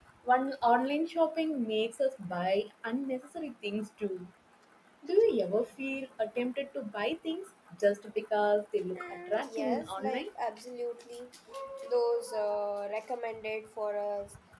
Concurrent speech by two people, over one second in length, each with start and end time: 9.0-10.3

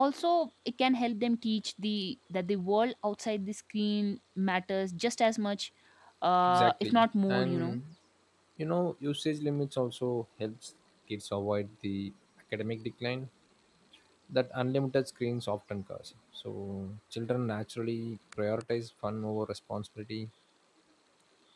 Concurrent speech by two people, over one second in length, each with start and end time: 6.5-7.8

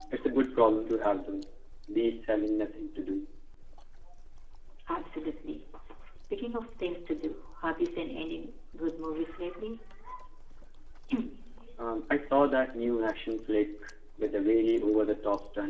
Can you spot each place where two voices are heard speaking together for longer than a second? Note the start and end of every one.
none

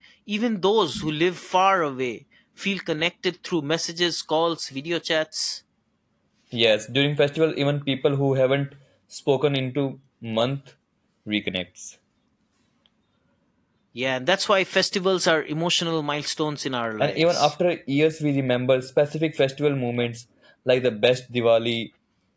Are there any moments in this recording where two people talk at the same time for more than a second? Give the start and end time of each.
none

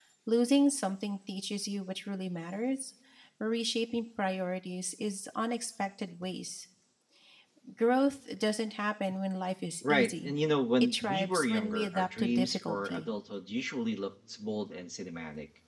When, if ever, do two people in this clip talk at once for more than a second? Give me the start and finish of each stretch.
10.8-13.1

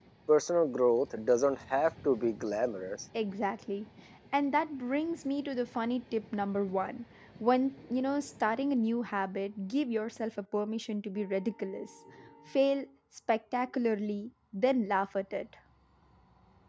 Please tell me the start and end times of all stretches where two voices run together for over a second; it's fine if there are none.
none

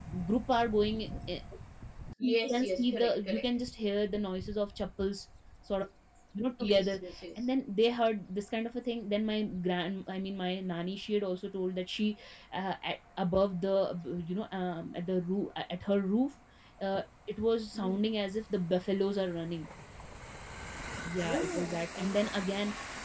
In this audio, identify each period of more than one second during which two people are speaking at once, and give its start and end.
2.3-3.5, 21.2-22.5

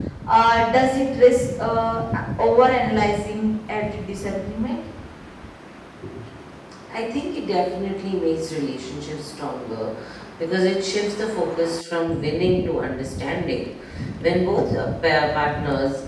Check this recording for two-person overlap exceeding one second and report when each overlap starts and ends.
none

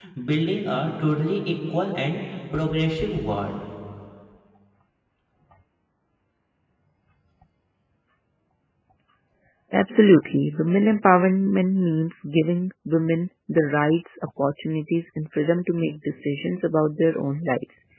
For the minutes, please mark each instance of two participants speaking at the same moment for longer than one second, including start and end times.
none

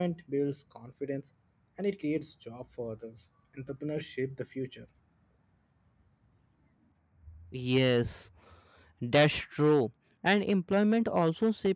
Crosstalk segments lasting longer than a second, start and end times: none

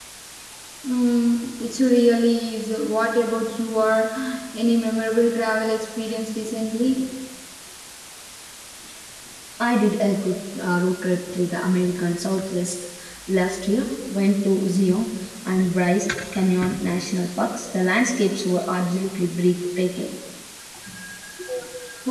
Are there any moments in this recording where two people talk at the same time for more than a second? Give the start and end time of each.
none

